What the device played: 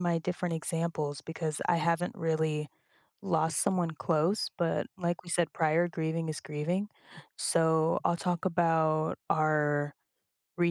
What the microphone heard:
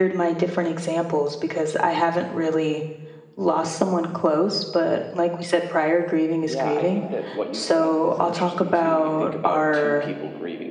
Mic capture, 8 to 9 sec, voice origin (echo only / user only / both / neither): both